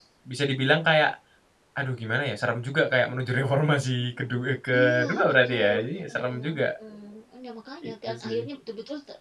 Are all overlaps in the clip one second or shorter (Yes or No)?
No